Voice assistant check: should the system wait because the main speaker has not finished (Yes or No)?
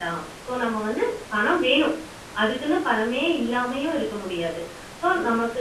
Yes